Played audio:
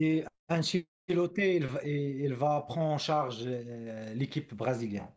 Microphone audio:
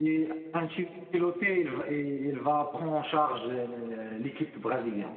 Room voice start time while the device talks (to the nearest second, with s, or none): none